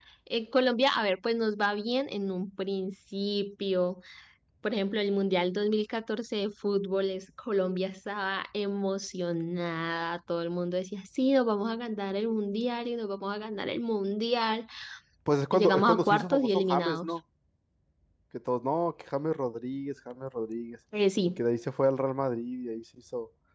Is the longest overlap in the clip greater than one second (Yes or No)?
Yes